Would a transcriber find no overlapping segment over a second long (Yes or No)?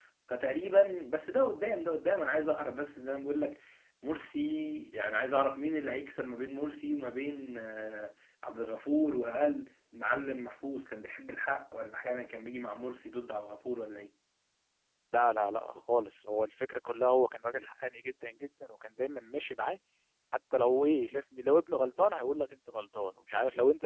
Yes